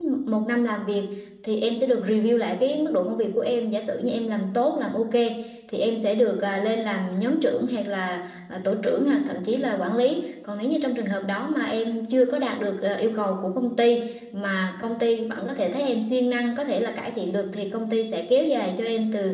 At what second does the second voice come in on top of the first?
none

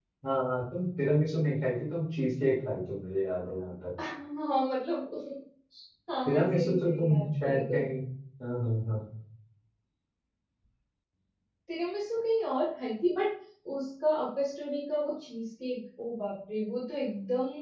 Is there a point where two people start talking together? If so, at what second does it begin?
6.2 s

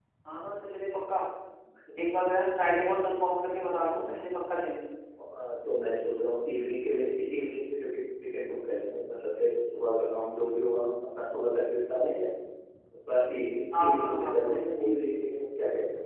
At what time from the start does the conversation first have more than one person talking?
13.8 s

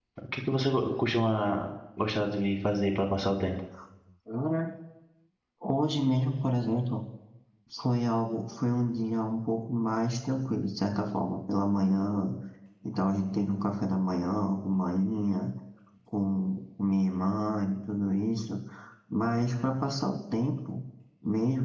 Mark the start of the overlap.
none

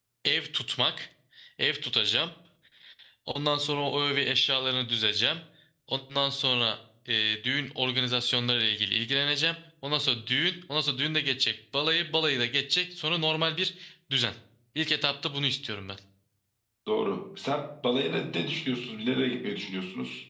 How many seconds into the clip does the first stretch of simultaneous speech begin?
none

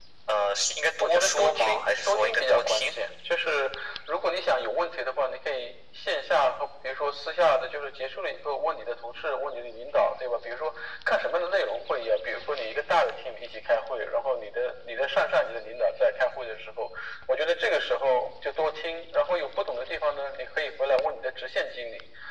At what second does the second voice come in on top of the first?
1.0 s

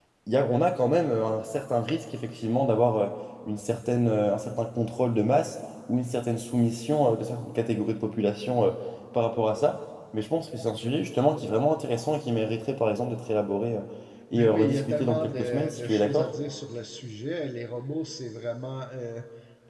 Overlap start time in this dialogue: 14.3 s

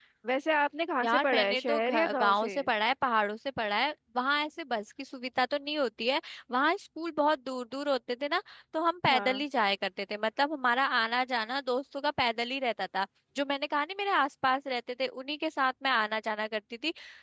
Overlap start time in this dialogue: 1.0 s

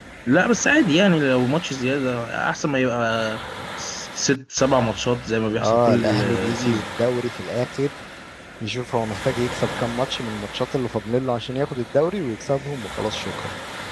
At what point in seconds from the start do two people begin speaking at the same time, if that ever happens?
5.6 s

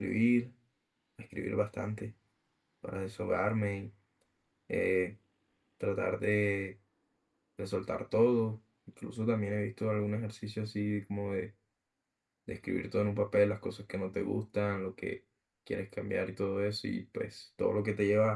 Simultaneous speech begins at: none

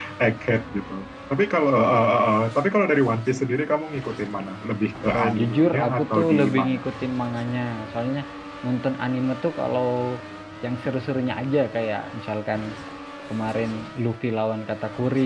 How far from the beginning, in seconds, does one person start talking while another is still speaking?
5.1 s

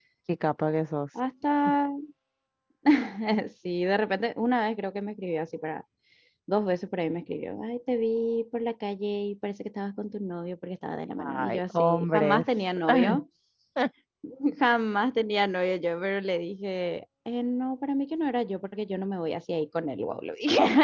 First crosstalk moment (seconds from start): 11.2 s

